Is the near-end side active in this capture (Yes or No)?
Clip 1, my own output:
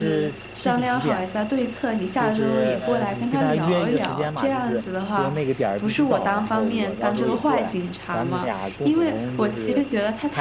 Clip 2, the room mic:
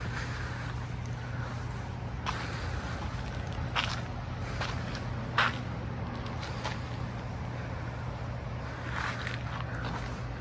No